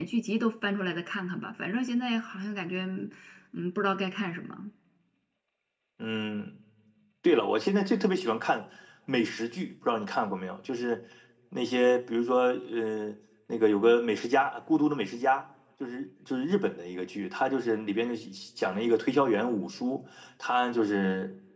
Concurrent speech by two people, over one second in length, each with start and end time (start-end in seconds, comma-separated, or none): none